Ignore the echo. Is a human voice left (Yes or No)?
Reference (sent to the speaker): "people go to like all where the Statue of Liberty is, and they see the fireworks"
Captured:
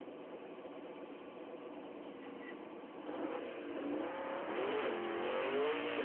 No